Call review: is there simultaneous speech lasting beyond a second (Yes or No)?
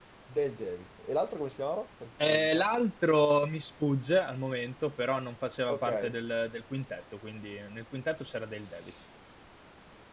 No